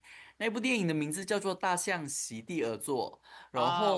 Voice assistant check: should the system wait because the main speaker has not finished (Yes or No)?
No